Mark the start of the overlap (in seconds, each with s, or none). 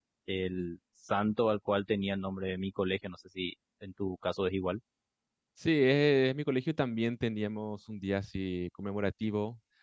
none